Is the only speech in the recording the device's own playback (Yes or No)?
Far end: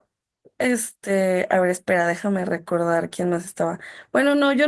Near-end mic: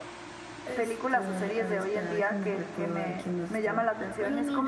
No